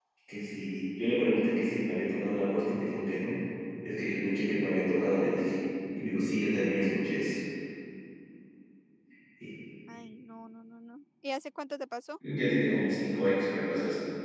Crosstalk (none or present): none